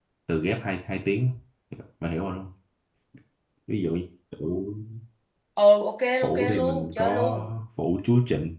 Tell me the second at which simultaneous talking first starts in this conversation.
6 s

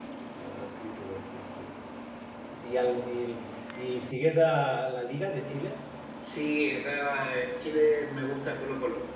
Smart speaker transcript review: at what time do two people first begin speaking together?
none

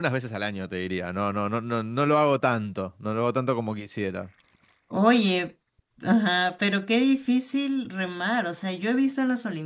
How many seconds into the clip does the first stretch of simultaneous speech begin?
none

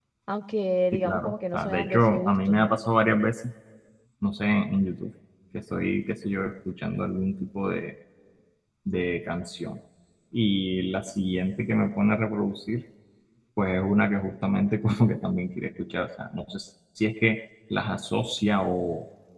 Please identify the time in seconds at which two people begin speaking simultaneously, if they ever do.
1 s

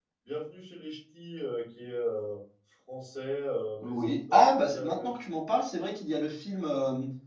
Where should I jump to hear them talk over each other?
4 s

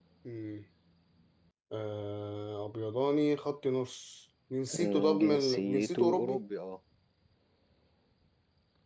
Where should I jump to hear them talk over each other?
5 s

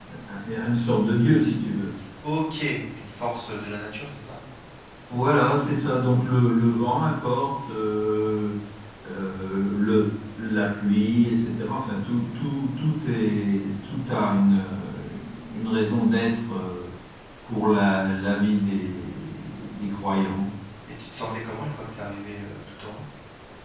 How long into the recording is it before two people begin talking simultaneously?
none

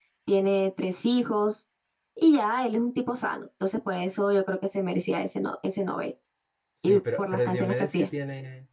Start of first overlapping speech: 7 s

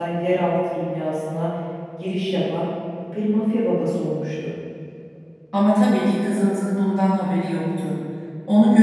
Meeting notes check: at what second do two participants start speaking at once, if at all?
none

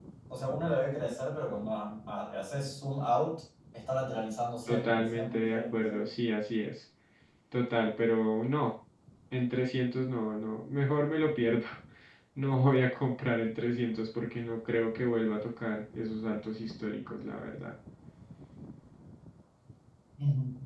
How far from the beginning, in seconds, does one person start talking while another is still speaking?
5 s

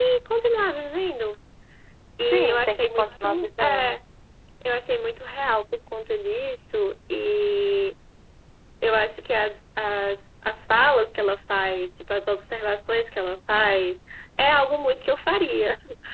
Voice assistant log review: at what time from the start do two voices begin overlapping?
2 s

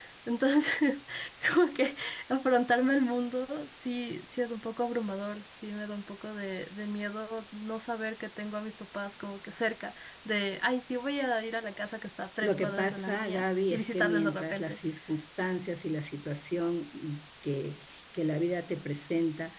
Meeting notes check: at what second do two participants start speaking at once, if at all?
12 s

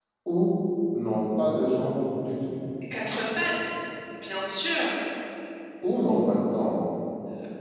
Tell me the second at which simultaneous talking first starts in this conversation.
none

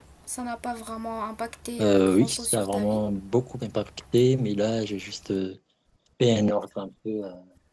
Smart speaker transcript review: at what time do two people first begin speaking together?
2 s

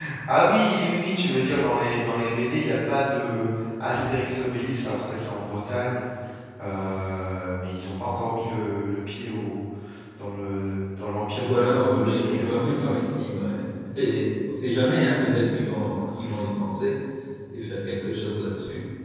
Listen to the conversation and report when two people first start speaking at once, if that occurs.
11 s

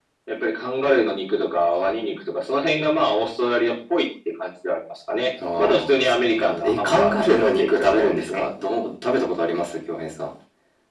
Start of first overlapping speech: 5 s

